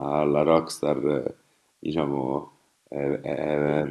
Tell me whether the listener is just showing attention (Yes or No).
Yes